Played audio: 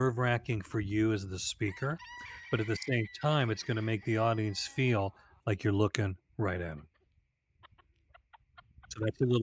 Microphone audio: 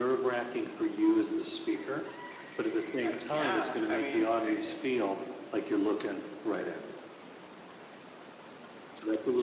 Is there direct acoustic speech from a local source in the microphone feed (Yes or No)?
Yes